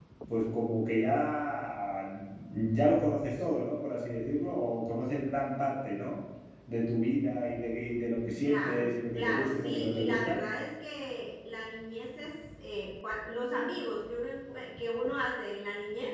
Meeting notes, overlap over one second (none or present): present